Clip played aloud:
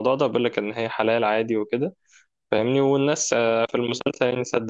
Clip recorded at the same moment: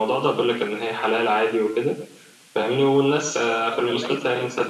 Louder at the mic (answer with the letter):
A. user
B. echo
B